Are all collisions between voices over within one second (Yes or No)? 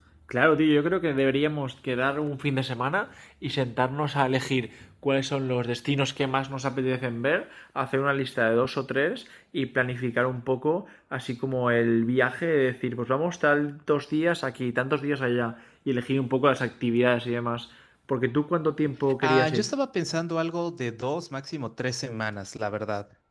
Yes